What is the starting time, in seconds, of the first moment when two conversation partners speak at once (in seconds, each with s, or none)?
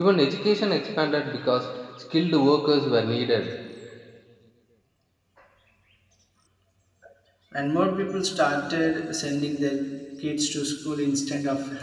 none